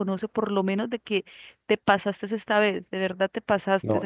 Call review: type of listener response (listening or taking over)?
taking over